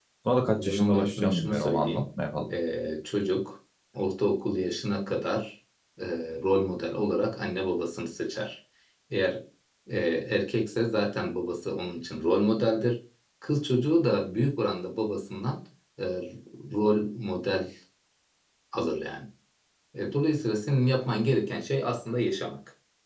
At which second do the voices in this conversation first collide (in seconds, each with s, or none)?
0.6 s